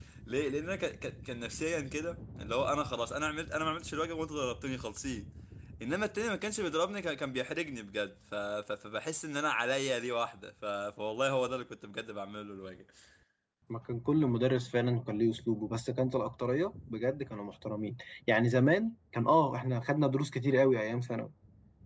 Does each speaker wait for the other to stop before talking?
Yes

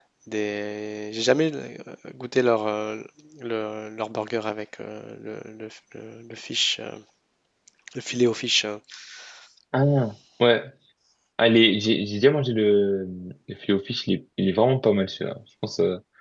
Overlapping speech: No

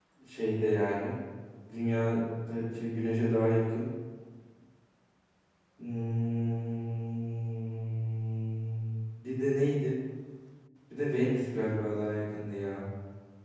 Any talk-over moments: No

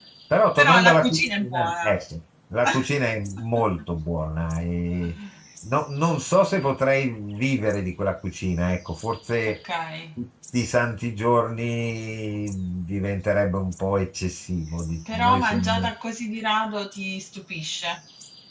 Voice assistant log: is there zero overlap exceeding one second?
No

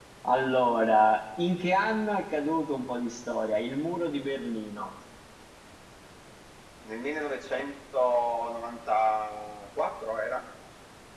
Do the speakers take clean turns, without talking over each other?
Yes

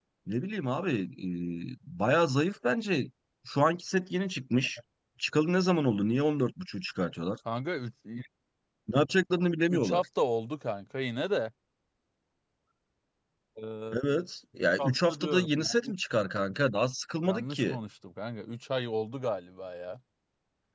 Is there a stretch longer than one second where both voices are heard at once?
Yes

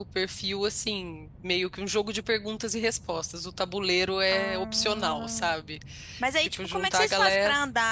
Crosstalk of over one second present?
Yes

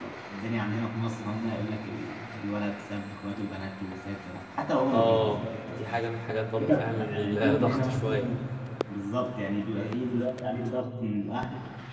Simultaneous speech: Yes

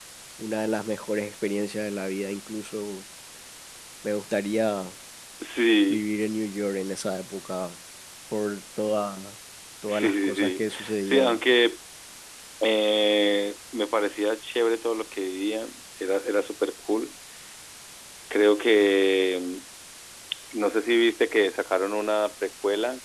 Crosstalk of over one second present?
Yes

